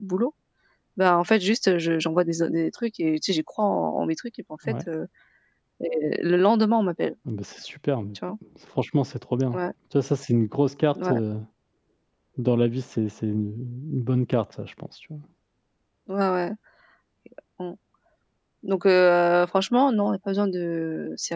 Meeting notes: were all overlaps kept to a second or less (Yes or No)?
Yes